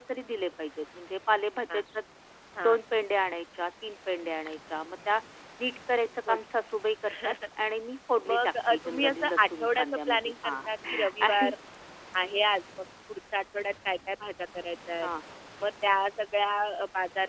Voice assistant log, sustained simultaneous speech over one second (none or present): present